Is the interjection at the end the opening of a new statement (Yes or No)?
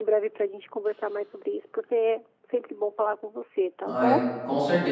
Yes